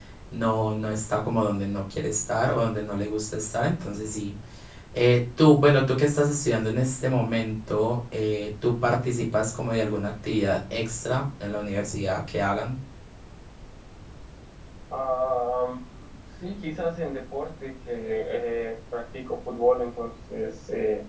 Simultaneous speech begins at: none

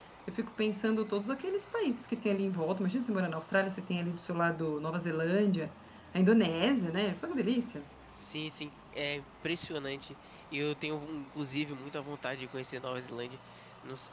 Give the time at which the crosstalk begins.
none

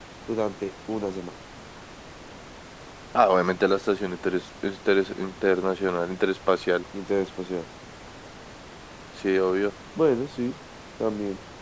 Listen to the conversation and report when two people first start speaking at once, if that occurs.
none

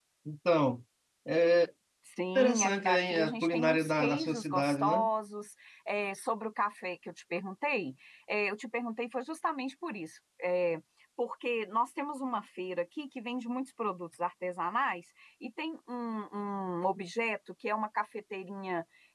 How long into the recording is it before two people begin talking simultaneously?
2.4 s

